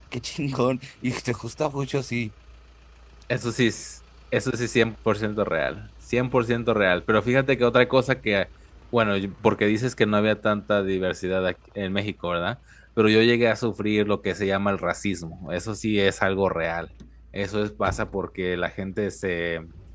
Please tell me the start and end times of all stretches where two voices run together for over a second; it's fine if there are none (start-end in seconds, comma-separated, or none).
none